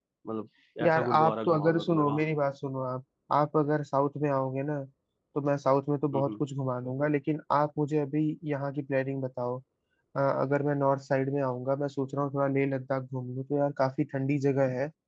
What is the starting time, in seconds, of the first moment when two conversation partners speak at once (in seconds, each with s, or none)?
0.8 s